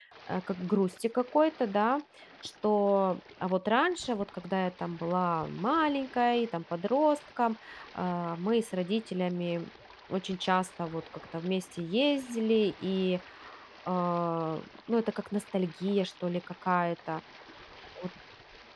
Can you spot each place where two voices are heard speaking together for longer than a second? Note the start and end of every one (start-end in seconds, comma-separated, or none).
none